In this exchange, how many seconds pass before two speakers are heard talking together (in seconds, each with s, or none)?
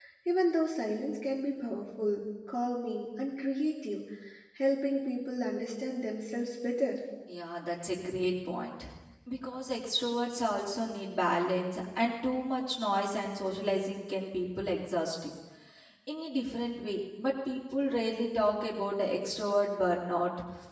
none